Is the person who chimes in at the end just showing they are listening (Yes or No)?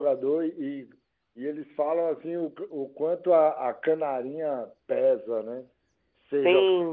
Yes